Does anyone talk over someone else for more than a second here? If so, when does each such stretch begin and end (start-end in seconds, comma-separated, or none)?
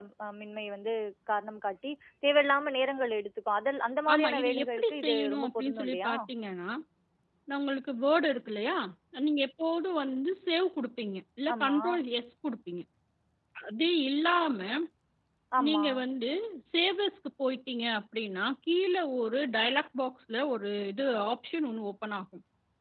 4.1-6.1